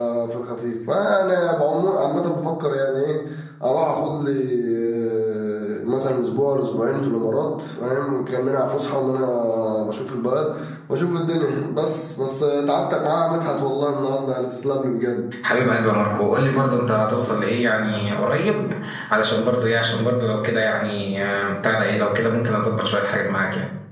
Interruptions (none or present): none